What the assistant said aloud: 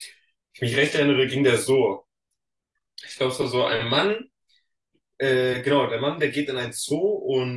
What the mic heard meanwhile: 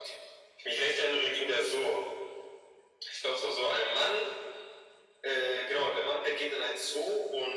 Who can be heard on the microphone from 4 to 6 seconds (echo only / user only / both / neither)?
echo only